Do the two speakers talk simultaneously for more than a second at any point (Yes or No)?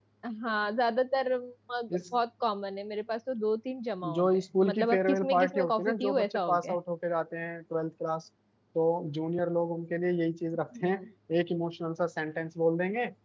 Yes